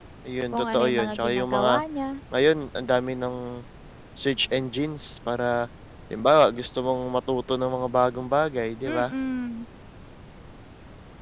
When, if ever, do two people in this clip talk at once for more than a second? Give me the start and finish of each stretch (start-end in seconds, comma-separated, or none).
0.5-1.7